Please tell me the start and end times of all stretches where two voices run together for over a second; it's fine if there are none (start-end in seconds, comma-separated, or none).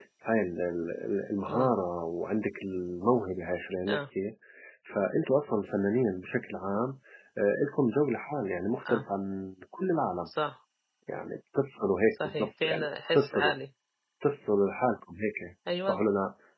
12.1-13.5